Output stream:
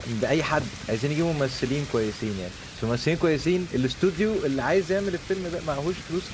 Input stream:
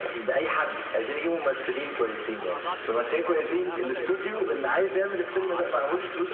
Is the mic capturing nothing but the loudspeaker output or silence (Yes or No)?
No